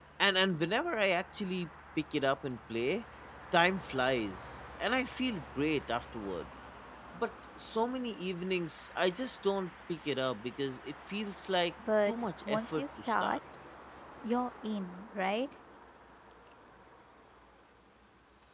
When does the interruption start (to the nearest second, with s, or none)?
12 s